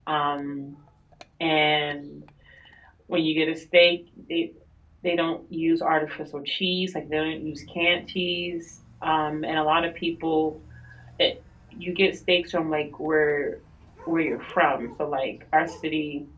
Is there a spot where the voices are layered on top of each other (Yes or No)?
No